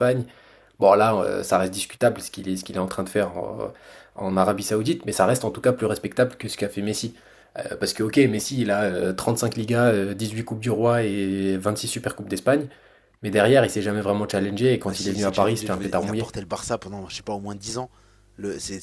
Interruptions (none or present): present